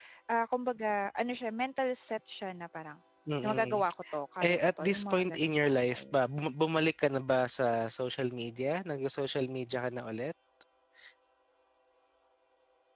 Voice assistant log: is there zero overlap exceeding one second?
No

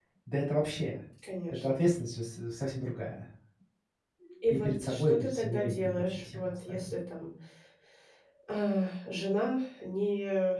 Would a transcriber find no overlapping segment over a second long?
No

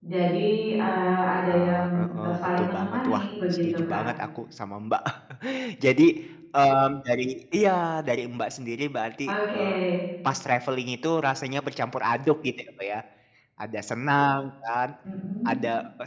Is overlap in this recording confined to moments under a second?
No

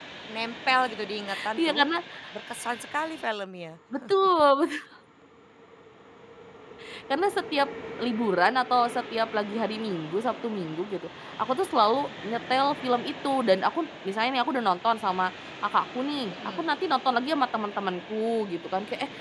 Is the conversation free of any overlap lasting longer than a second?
Yes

